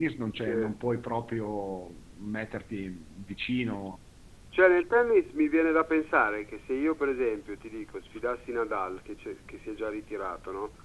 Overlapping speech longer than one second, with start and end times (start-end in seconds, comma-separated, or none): none